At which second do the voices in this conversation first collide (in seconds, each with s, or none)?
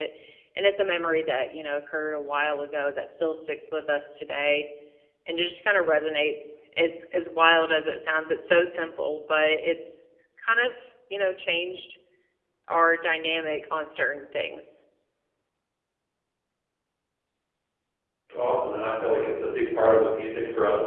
none